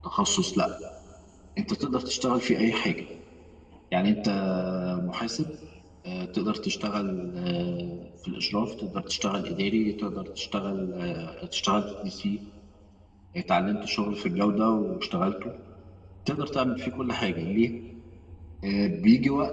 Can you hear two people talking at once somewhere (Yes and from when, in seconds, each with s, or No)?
No